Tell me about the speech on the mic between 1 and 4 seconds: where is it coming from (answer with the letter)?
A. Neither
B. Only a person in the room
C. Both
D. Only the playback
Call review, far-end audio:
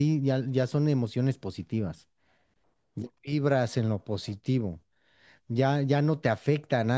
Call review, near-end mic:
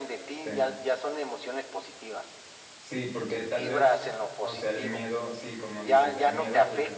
C